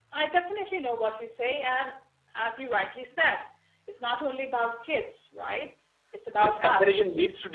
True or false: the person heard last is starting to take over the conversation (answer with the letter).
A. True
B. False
A